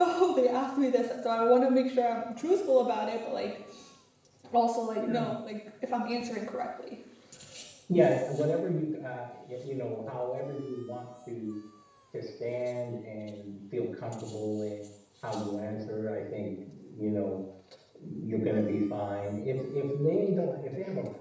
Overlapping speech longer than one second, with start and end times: none

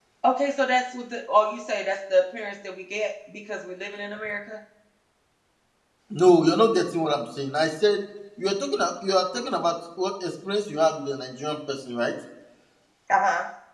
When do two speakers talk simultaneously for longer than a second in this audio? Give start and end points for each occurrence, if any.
none

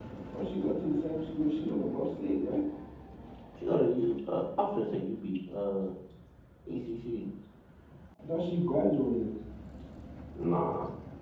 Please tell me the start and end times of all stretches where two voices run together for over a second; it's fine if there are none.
none

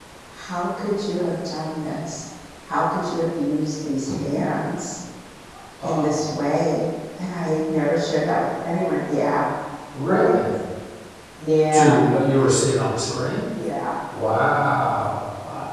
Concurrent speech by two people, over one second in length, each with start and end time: none

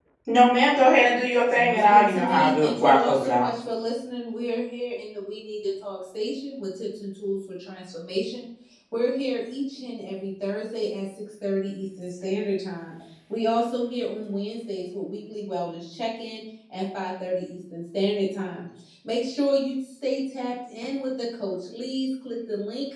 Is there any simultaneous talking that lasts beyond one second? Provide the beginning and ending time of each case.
1.5-3.5

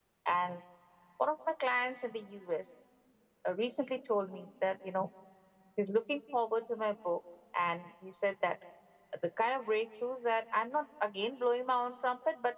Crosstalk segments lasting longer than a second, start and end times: none

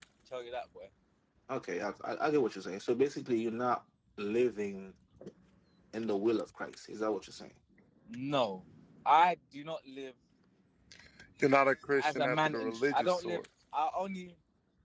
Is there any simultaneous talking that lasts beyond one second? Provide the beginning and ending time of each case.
12.0-13.4

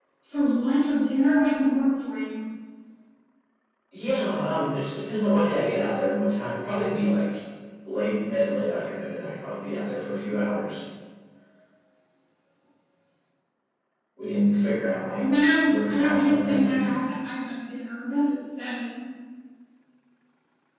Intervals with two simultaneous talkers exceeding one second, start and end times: 15.2-16.9

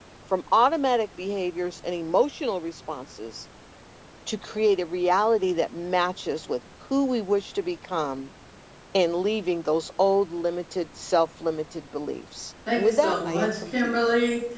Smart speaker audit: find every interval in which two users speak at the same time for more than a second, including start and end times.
12.8-14.0

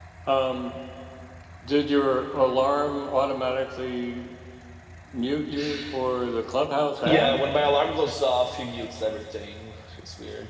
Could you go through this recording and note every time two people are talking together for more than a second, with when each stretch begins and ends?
none

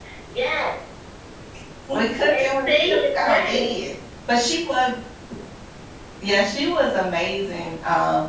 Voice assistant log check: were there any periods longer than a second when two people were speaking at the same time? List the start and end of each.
2.3-3.6

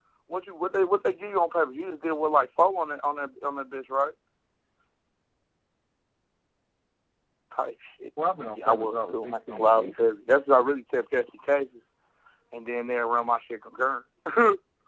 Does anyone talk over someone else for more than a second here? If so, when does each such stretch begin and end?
8.6-9.9

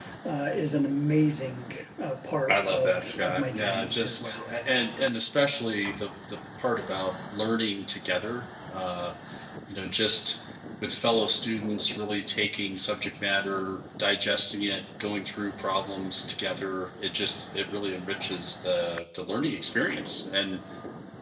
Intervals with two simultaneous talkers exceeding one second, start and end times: 2.5-4.5

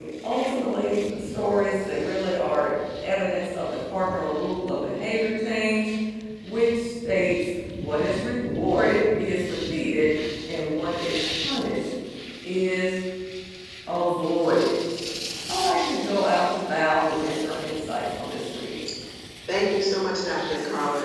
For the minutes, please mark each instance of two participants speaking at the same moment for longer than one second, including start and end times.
none

